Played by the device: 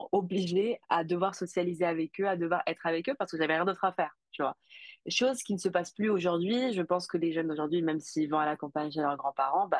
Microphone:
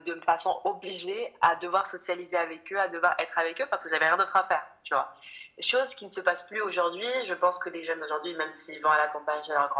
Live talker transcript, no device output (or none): none